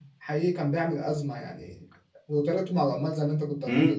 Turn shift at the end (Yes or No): Yes